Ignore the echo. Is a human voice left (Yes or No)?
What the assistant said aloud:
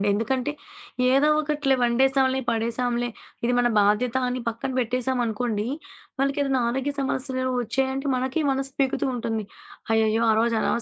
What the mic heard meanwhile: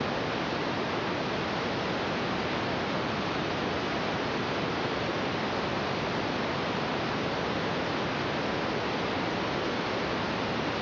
No